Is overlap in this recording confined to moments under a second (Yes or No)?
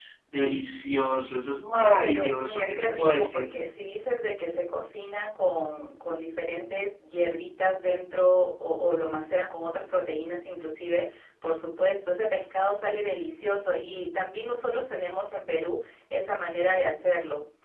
No